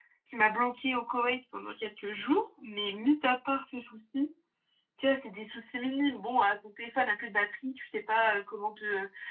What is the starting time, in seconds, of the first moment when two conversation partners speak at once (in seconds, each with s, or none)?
none